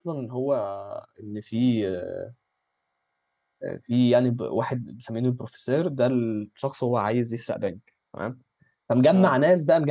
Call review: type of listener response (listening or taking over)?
listening